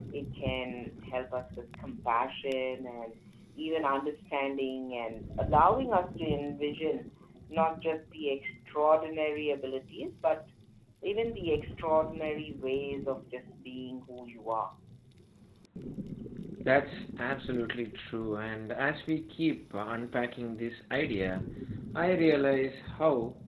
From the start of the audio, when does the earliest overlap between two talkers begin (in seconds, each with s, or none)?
none